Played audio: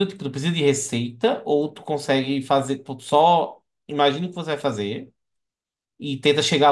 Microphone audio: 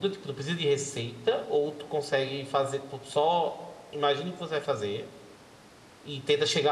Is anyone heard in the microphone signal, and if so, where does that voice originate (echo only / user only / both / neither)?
echo only